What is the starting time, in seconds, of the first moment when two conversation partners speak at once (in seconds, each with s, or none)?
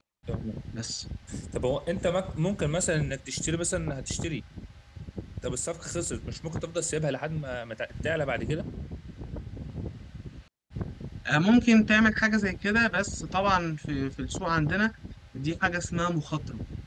none